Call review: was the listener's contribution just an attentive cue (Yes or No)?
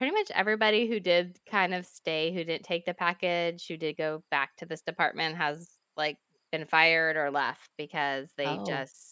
Yes